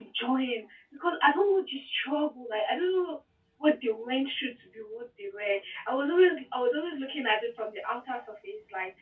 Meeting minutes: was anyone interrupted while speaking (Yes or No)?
No